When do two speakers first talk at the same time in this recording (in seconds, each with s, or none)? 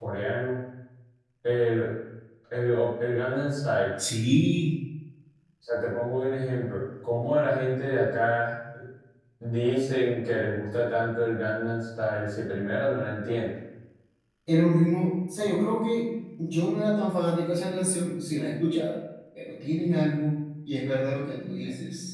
none